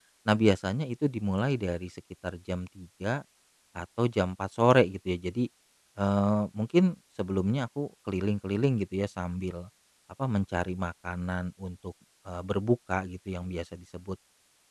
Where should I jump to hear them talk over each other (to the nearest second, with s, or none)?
none